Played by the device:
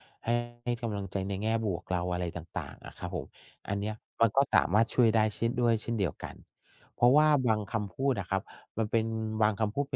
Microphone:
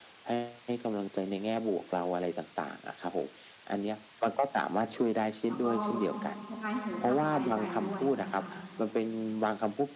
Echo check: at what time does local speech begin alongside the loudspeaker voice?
5.5 s

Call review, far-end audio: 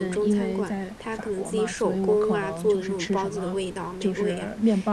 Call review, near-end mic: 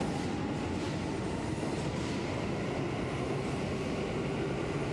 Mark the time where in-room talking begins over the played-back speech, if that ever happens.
none

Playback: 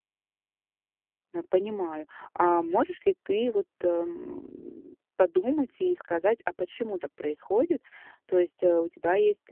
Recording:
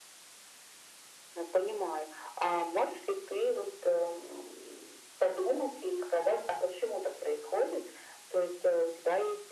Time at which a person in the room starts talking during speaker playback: none

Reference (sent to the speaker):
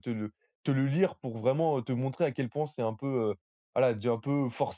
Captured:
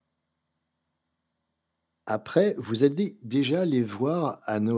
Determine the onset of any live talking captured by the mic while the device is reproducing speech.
2.0 s

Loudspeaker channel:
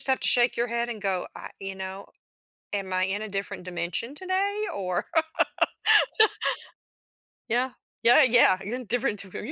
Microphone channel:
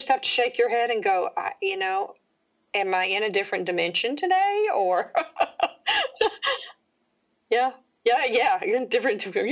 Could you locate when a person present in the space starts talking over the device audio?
none

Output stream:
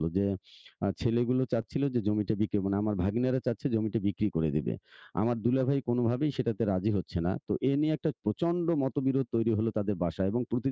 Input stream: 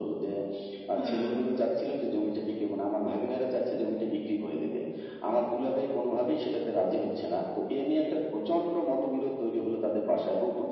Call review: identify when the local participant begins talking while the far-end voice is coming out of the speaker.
1.0 s

